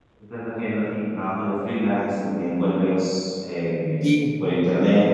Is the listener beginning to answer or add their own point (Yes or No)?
No